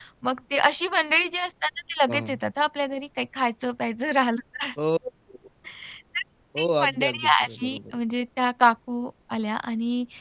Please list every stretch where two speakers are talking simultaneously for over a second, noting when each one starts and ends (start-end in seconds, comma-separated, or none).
6.6-8.0